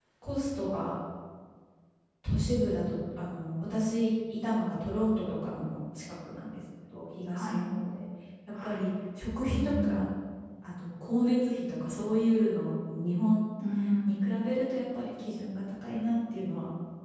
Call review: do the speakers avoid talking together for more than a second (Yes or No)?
Yes